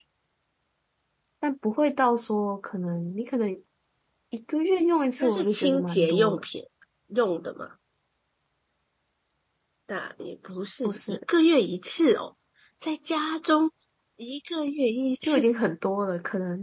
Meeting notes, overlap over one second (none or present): present